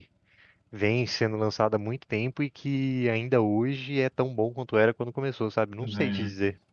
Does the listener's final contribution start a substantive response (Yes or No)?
Yes